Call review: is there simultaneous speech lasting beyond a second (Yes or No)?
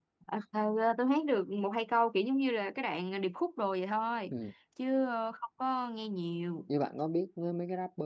No